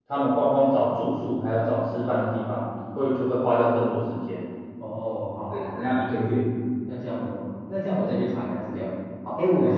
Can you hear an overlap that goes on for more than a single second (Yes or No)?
No